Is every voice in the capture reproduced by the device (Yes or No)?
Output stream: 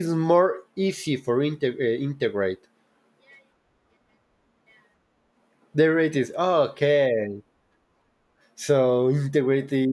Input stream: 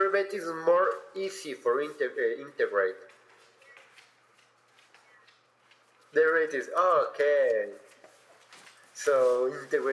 Yes